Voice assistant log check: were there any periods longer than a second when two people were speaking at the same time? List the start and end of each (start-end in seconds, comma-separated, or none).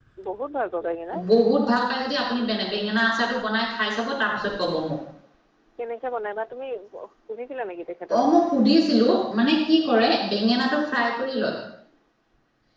none